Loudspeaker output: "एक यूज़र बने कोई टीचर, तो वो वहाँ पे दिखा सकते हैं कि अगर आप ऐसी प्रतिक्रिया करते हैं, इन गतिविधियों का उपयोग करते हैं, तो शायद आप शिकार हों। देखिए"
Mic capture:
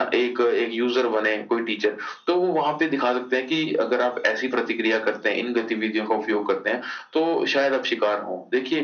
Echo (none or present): present